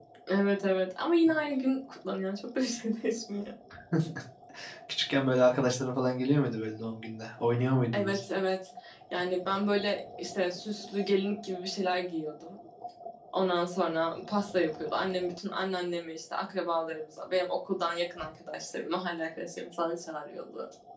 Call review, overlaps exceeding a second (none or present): none